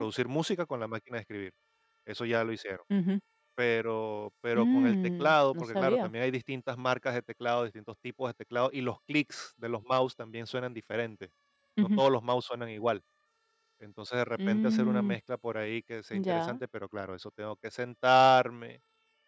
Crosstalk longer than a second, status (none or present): present